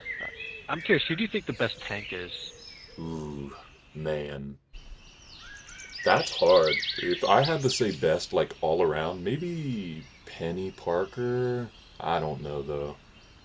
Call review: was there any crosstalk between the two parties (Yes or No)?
No